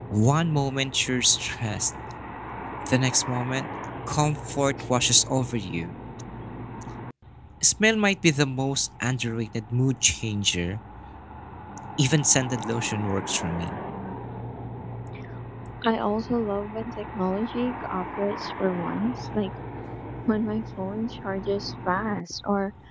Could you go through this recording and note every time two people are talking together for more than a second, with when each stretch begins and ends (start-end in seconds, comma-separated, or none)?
none